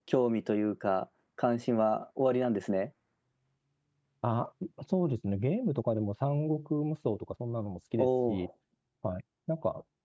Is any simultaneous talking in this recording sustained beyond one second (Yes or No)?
No